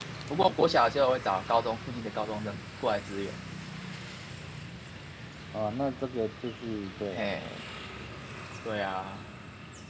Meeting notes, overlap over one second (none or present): none